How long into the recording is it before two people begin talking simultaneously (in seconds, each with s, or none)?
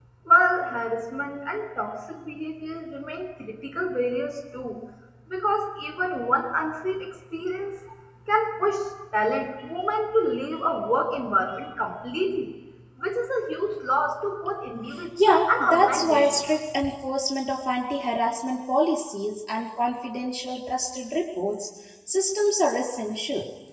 15.2 s